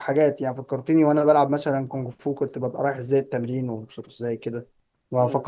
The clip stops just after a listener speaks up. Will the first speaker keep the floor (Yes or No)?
Yes